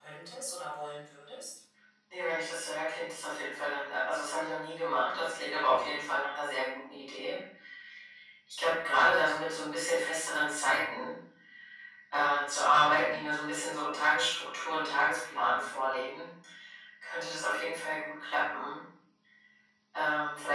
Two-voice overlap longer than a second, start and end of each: none

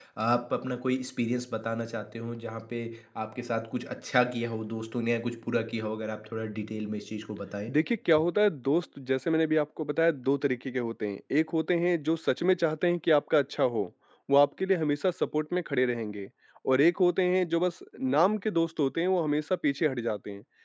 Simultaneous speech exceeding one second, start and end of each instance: none

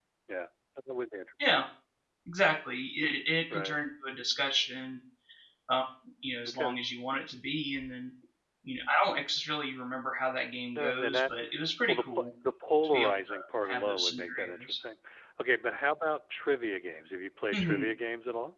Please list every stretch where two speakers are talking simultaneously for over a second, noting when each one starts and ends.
12.9-14.8

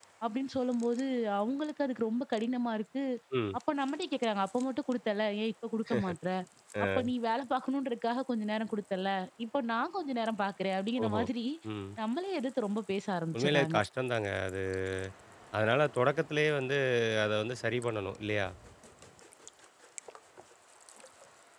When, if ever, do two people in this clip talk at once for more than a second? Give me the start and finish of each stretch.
none

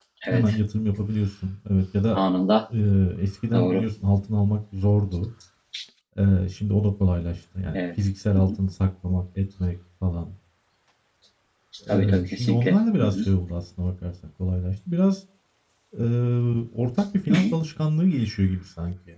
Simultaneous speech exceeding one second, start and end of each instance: 11.9-13.2

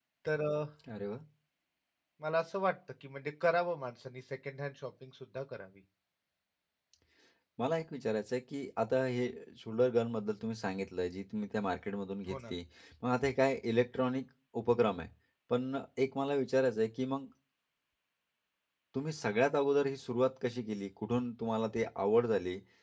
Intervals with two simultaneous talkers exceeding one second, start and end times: none

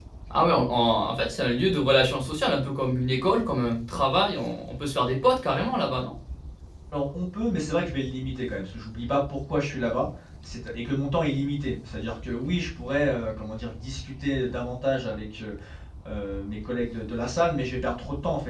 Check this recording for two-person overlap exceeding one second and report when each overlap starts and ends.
none

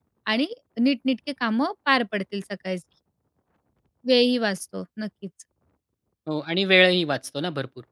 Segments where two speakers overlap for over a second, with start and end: none

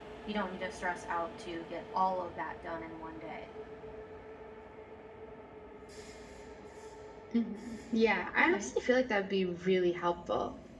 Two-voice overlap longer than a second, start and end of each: none

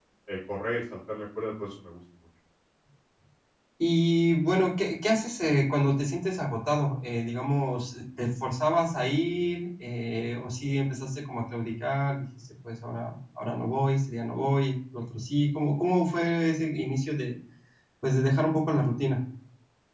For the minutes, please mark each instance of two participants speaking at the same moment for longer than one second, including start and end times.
none

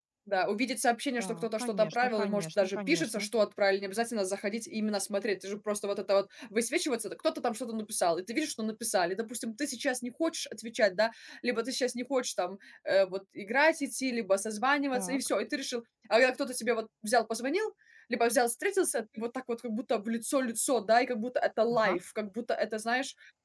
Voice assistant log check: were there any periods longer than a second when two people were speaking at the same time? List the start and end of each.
1.2-3.3

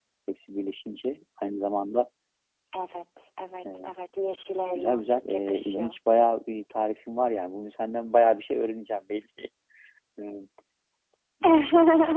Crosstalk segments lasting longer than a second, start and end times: 4.8-6.0

